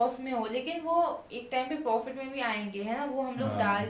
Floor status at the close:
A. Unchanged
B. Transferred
A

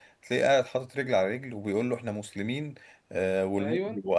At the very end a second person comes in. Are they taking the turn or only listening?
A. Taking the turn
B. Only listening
B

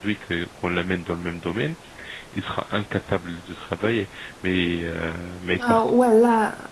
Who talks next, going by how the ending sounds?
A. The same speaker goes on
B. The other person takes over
B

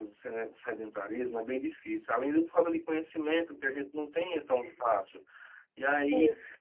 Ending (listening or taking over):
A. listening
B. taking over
A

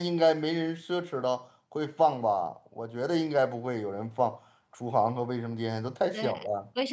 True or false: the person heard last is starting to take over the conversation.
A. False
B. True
B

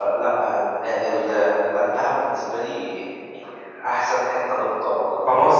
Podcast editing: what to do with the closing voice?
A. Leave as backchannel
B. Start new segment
B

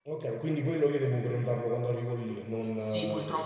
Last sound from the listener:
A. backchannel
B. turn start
B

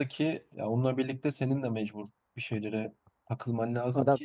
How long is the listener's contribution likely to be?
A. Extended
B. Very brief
B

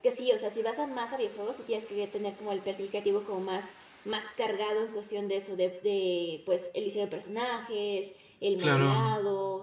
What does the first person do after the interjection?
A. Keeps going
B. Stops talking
A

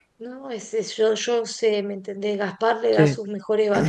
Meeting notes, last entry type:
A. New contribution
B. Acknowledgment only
B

